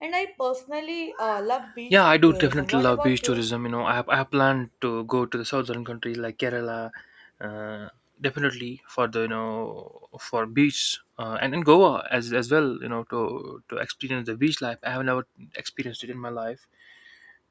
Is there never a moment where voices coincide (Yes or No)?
No